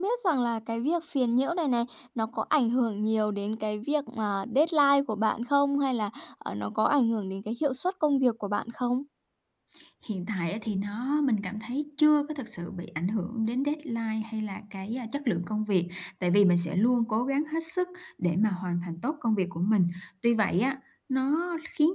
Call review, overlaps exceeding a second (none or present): none